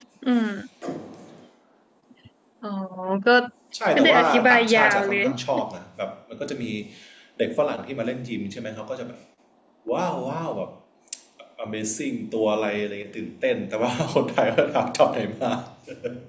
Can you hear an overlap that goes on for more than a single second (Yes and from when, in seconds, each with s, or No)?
Yes, from 3.9 s